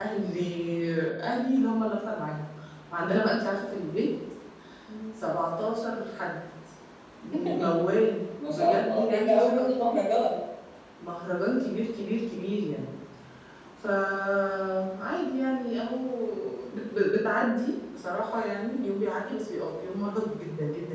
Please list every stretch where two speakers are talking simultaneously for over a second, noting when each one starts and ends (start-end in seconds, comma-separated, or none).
8.5-10.0